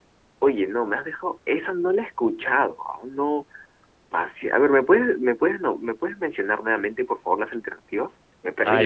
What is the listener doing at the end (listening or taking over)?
taking over